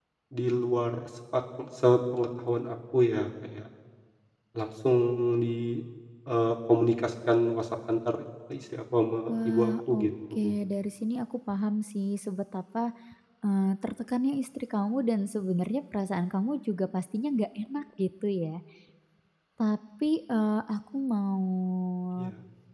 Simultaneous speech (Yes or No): Yes